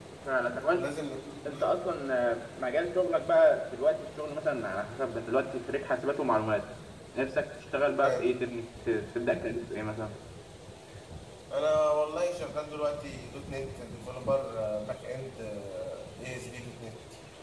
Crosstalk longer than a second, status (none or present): none